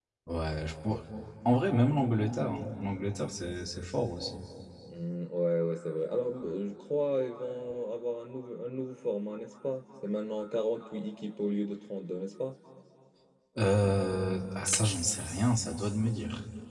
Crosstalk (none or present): none